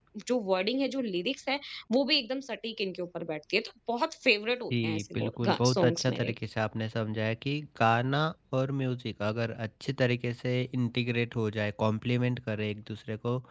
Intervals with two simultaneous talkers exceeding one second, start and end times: 4.7-6.3

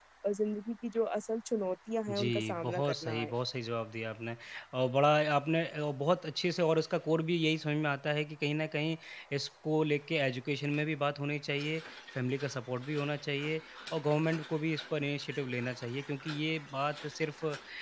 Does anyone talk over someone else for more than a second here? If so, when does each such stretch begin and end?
2.1-3.3

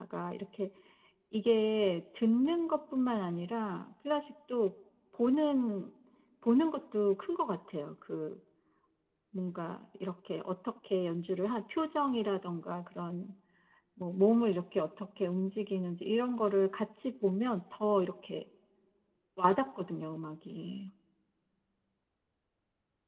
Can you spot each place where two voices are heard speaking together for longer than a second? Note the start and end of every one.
none

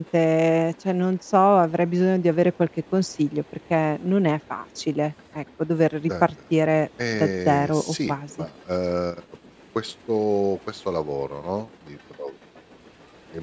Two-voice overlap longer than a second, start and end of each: 7.2-8.4

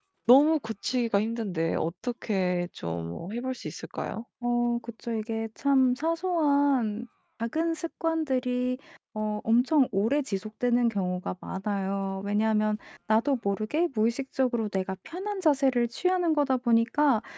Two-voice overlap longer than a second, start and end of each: none

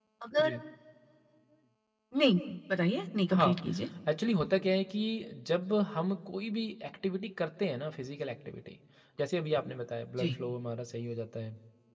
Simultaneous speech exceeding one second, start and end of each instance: none

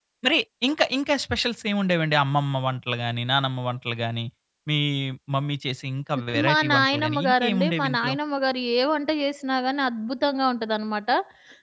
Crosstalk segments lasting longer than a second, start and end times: 6.5-8.1

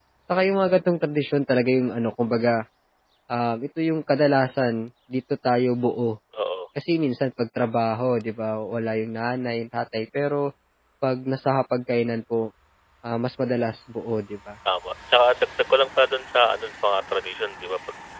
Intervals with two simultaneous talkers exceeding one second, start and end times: none

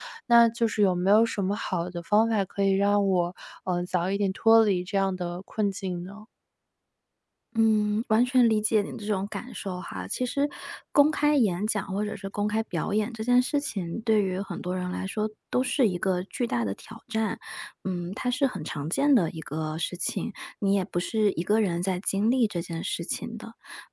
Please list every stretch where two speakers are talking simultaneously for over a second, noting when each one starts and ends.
none

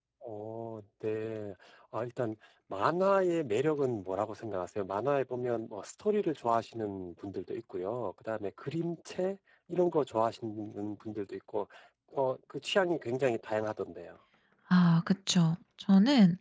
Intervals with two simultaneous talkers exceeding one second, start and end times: none

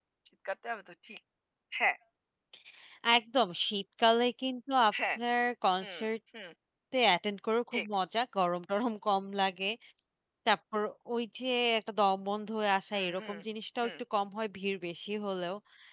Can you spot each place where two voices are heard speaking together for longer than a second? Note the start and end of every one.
none

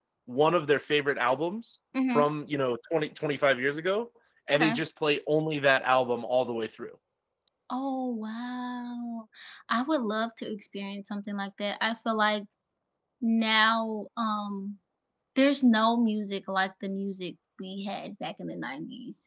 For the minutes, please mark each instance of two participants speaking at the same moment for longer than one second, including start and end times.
none

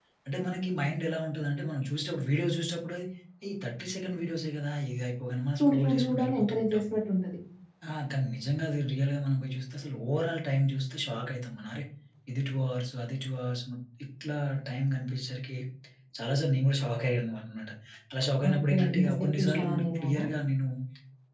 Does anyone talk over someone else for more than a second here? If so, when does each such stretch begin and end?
5.6-6.8, 18.5-20.2

